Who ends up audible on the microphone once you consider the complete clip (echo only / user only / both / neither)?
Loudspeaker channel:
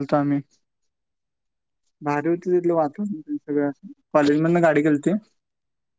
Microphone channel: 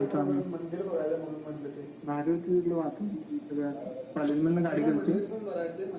both